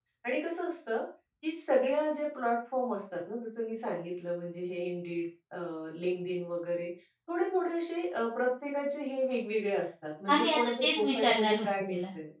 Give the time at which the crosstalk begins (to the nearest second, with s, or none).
10 s